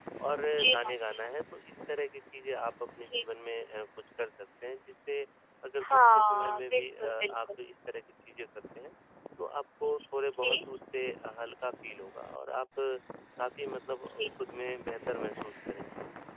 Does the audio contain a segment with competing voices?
Yes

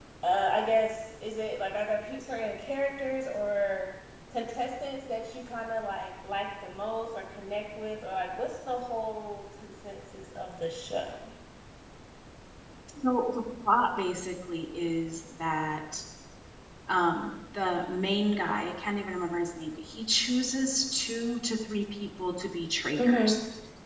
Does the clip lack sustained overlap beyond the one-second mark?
Yes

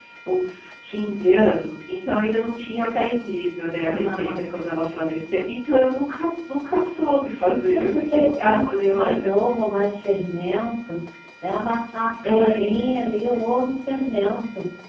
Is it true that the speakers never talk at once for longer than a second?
No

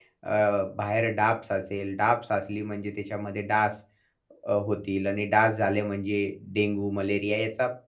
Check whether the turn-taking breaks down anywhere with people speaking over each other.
No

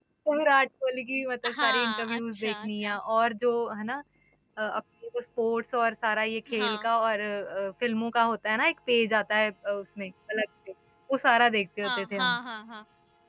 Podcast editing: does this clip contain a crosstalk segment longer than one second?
Yes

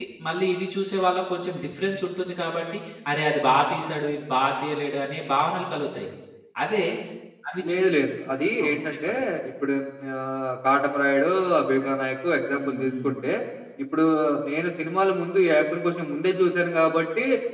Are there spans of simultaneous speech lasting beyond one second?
No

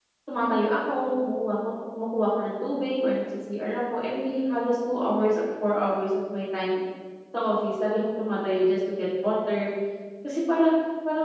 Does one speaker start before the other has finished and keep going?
No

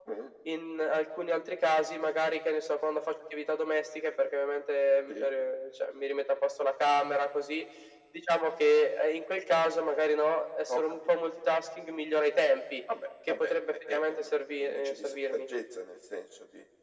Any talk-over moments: Yes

